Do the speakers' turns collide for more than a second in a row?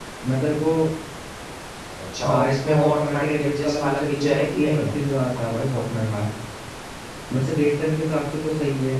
Yes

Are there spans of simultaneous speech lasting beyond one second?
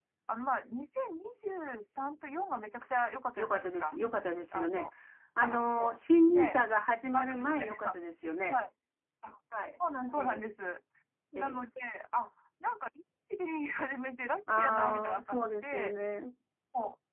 Yes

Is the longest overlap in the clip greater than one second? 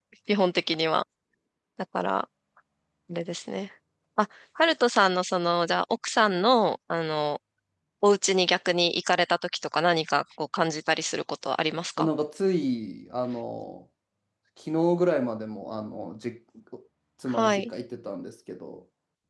No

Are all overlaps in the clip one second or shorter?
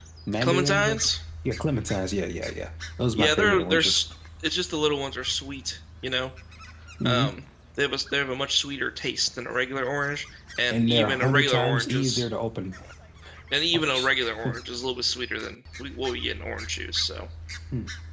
No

